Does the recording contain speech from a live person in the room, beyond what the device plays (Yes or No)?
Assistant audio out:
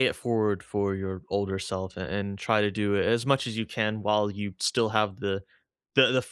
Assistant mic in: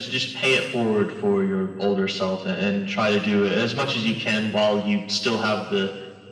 No